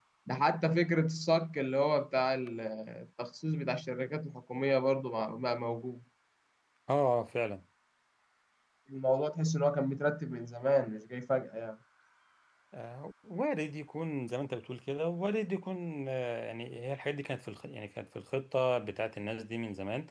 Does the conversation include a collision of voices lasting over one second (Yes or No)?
No